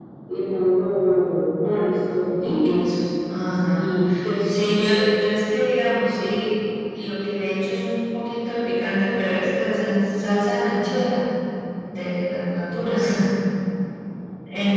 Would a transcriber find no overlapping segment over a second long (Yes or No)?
Yes